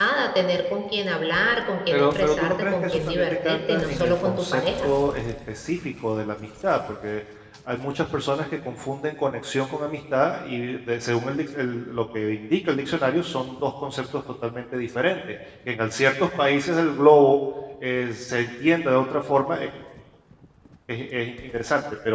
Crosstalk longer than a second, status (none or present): present